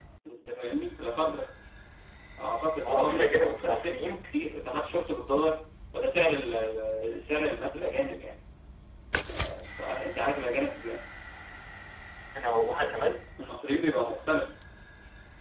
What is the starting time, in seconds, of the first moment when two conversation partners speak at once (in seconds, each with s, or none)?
2.9 s